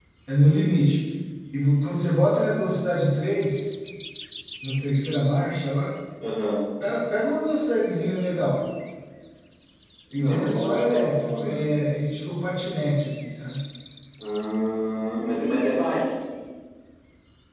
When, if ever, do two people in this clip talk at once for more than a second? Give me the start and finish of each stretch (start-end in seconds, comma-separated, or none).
10.1-11.6